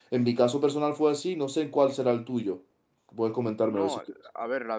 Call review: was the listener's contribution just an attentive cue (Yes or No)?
No